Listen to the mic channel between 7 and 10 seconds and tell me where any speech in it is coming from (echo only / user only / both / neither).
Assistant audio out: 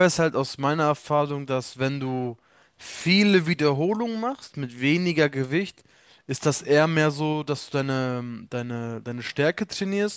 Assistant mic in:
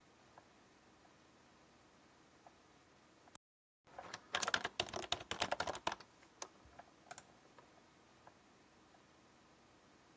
neither